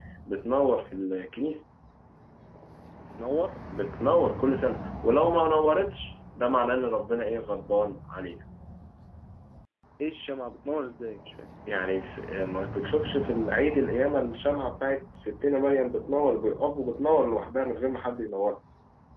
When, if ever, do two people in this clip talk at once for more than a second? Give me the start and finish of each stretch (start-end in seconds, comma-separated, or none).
none